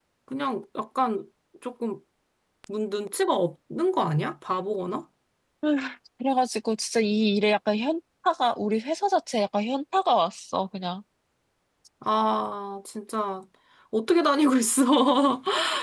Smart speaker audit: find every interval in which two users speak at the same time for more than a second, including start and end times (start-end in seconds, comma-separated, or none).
none